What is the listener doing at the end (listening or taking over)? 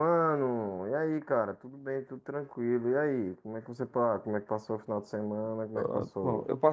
taking over